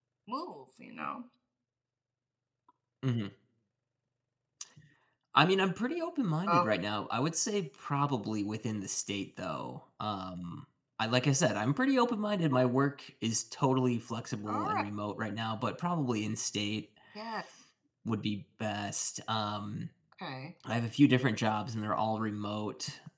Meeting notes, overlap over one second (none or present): none